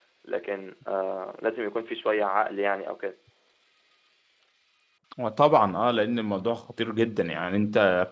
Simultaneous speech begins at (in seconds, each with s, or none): none